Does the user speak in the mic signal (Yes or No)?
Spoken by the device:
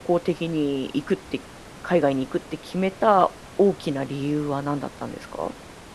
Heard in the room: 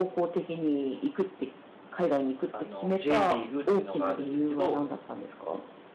Yes